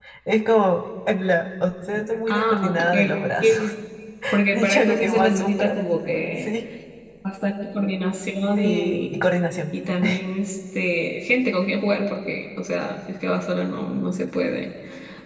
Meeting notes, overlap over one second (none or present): present